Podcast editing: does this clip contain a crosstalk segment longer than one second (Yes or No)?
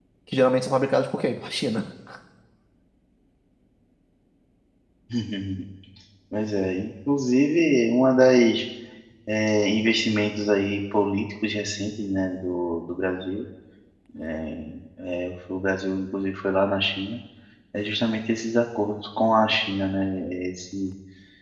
No